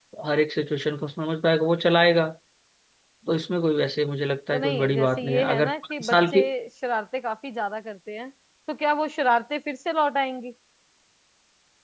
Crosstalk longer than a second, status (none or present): present